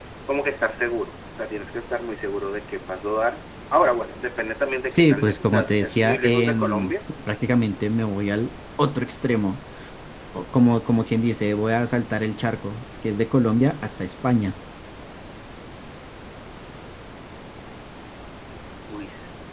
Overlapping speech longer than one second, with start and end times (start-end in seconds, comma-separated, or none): 4.9-6.9